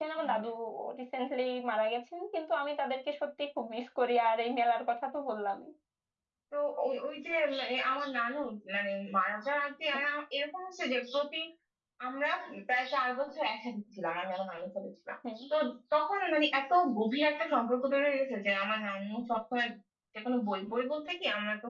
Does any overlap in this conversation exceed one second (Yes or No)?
No